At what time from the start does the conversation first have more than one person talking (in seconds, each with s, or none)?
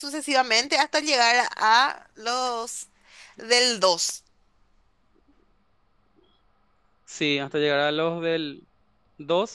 none